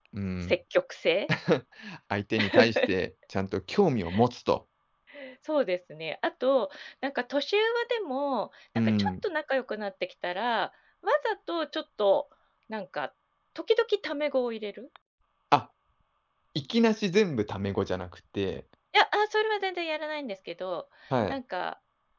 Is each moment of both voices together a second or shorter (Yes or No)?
Yes